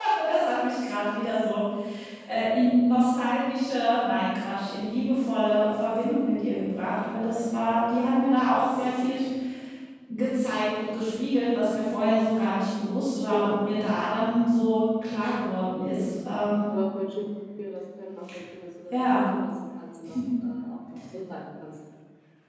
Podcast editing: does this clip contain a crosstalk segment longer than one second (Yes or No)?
No